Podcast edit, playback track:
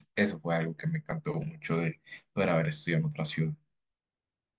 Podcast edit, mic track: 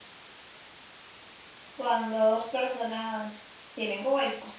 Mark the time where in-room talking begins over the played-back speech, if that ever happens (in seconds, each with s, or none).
1.7 s